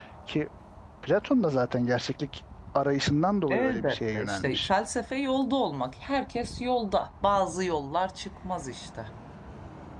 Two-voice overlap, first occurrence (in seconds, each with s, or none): 3.5 s